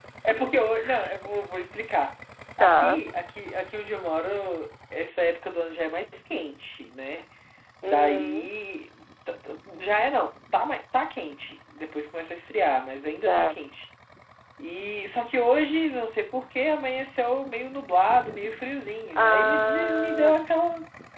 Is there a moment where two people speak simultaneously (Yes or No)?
Yes